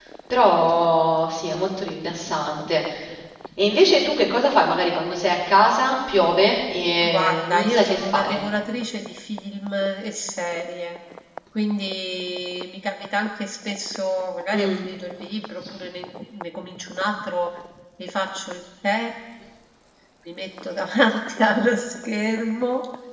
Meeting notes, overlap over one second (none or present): present